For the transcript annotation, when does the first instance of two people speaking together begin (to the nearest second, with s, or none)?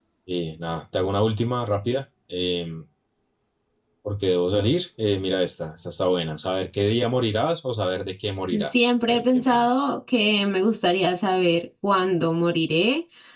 9 s